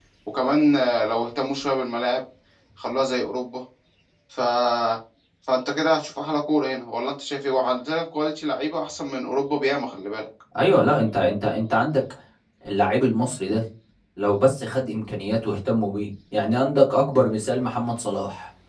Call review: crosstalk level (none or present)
none